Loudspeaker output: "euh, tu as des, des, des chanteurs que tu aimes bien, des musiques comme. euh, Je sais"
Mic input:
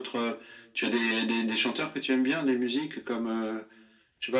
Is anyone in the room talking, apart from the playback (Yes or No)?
No